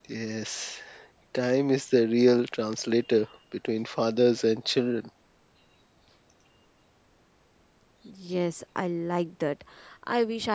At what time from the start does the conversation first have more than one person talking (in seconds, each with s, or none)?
none